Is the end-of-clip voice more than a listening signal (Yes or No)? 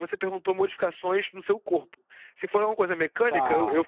No